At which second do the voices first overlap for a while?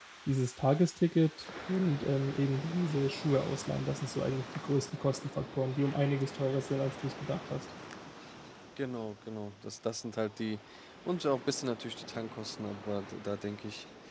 none

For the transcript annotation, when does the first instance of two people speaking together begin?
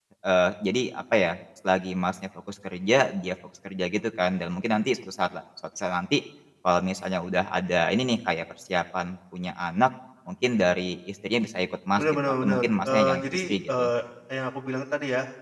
12.0 s

